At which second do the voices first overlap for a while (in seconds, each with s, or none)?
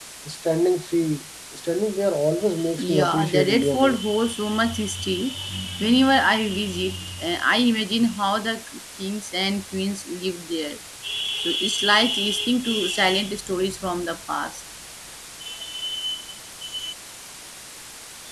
2.6 s